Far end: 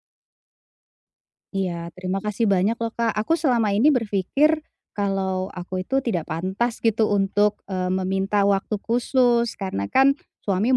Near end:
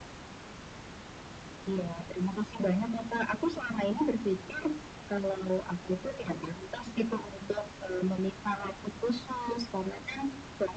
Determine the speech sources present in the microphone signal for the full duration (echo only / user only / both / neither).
echo only